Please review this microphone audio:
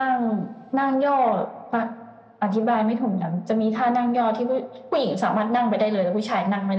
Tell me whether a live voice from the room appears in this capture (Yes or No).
No